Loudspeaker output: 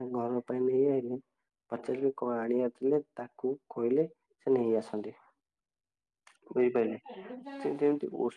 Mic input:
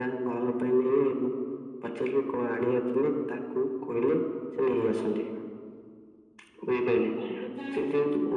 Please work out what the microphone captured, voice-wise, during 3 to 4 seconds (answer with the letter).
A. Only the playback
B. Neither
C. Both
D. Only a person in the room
A